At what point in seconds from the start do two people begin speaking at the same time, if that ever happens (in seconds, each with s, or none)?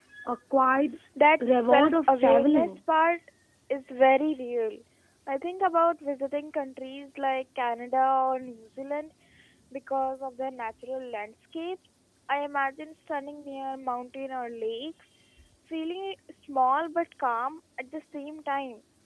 1.5 s